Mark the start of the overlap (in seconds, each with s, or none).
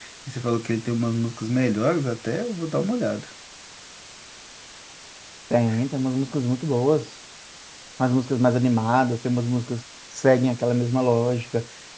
none